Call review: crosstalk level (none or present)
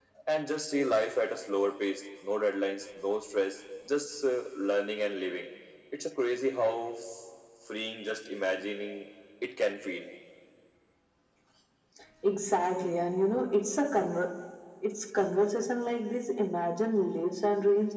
none